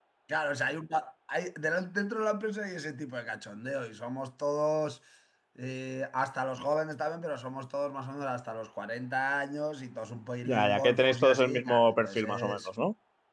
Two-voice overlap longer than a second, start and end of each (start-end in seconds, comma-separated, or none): 10.4-12.7